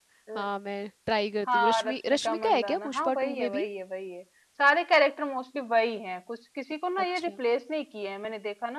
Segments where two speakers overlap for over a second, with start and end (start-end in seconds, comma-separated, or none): 1.5-3.6